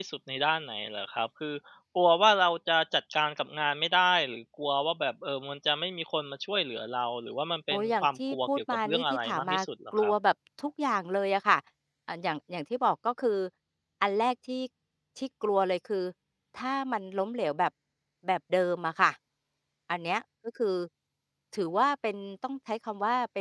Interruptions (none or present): present